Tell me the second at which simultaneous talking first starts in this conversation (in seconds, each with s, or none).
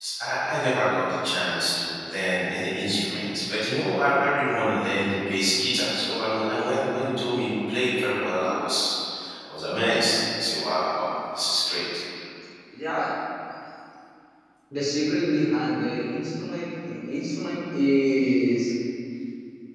none